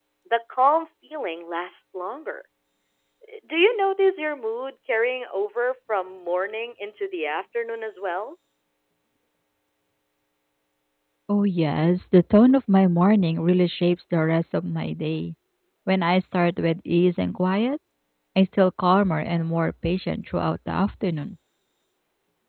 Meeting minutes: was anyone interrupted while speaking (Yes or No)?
No